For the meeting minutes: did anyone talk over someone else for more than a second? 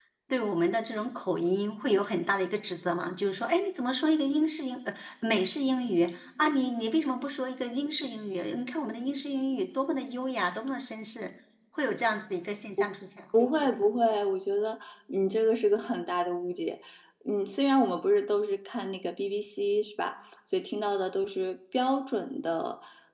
No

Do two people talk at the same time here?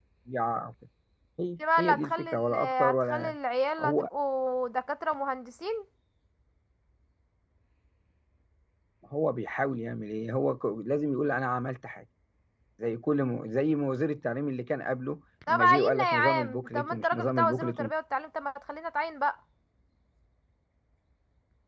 Yes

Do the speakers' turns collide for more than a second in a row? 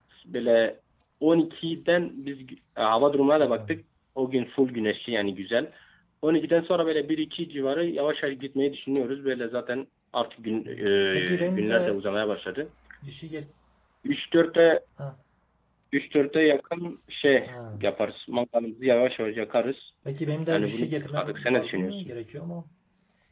Yes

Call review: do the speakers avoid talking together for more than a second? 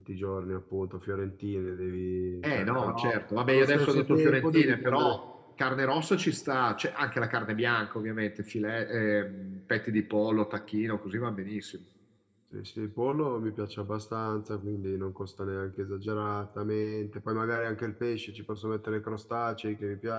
No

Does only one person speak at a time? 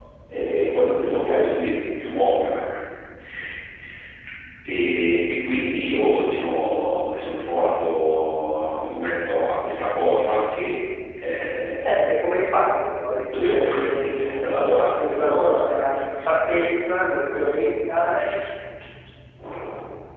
No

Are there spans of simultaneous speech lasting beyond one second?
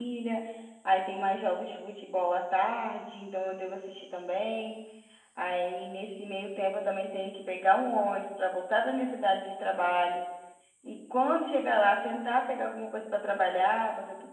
No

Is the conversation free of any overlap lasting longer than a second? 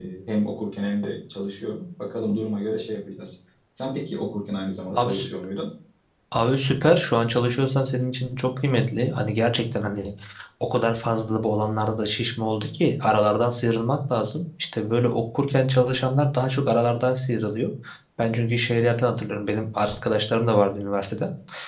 Yes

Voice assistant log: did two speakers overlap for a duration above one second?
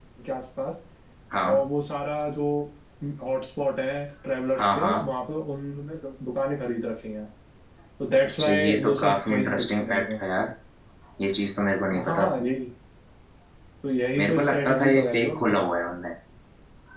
Yes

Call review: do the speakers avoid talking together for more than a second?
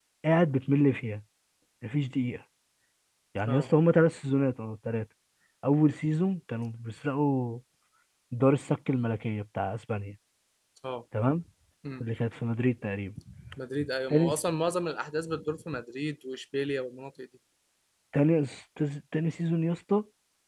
Yes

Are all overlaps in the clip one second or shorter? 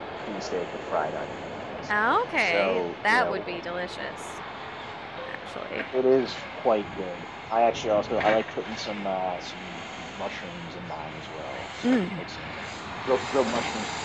No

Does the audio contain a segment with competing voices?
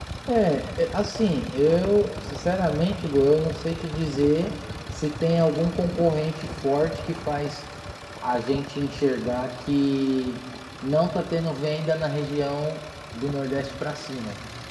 No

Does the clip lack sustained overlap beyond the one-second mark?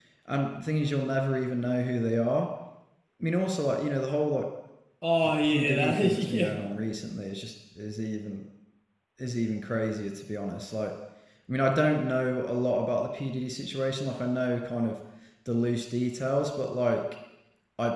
No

